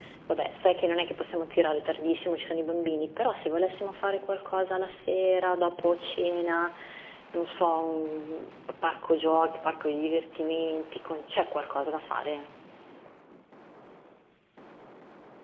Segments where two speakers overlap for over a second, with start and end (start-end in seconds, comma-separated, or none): none